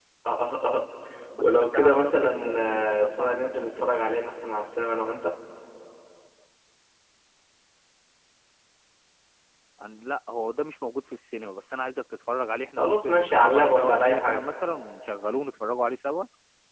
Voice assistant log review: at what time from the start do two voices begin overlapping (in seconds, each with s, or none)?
1.4 s